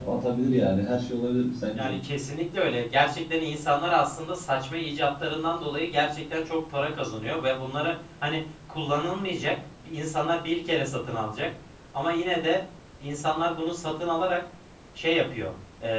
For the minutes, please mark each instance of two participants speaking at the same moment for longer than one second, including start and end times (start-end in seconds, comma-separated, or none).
none